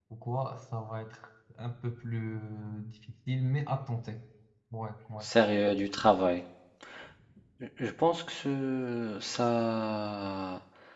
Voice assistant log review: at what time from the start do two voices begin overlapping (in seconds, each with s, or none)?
none